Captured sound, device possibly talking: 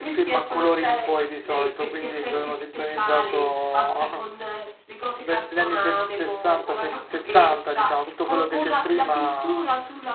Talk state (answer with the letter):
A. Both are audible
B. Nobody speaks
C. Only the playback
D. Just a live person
A